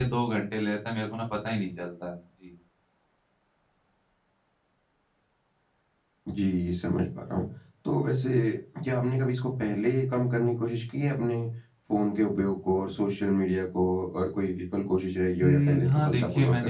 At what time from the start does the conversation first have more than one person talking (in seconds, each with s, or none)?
15.4 s